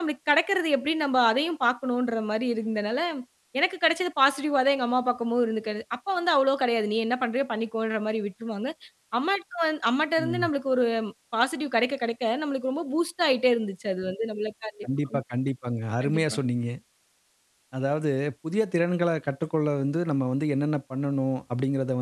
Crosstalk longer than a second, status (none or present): none